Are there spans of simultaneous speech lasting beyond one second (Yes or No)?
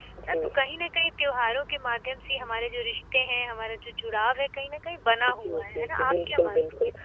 Yes